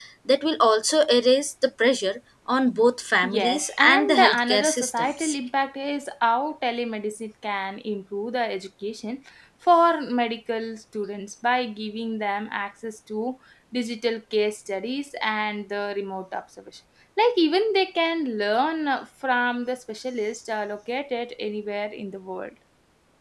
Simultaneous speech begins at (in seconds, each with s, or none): 3.2 s